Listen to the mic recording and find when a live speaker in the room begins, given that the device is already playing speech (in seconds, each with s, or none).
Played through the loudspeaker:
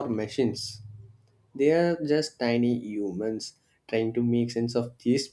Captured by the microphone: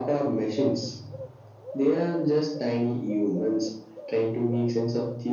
none